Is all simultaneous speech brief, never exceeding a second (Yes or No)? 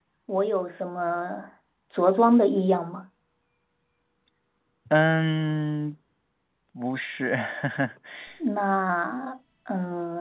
Yes